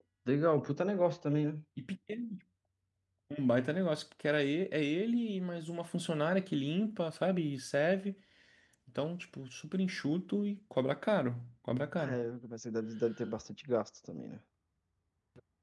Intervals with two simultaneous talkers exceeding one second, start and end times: none

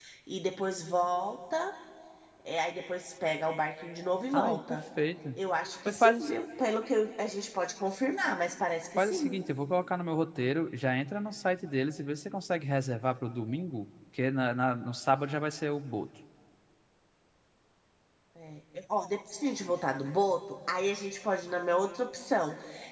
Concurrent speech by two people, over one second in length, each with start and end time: none

